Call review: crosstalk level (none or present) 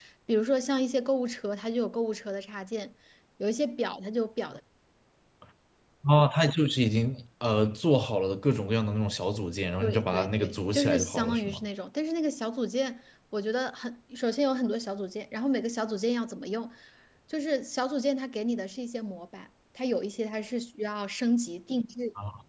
present